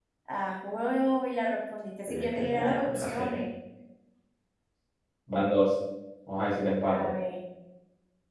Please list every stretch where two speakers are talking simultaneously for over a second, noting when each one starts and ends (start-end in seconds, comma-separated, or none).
2.1-3.4